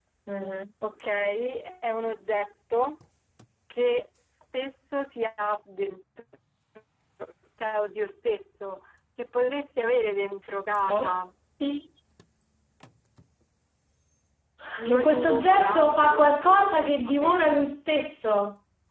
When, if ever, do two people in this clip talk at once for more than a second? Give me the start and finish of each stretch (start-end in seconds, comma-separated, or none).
14.9-17.4